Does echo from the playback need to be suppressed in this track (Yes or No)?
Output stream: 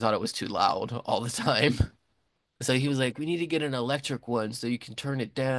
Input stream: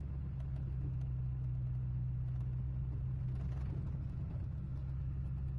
No